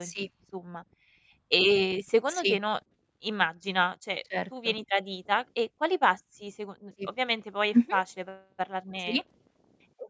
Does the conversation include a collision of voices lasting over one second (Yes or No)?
No